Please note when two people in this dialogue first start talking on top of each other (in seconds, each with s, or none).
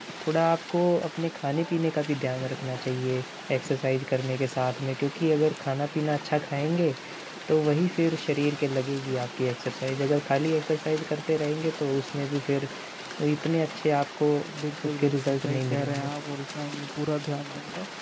14.8 s